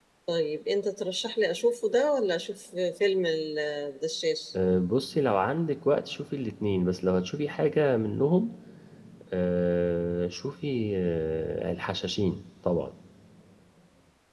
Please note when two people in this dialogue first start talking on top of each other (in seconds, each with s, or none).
none